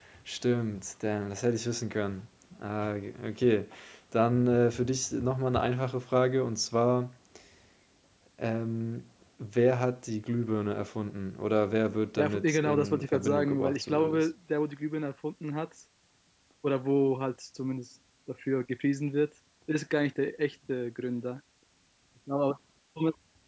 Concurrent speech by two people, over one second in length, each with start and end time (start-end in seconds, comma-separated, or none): 12.2-14.3